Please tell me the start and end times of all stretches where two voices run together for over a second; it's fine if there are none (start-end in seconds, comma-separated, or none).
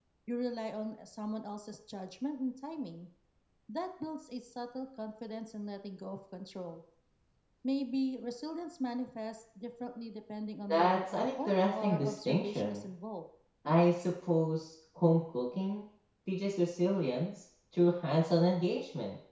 10.7-12.9